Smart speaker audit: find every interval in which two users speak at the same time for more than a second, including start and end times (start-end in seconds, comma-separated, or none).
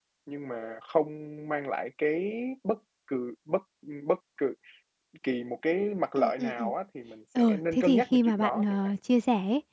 7.4-8.8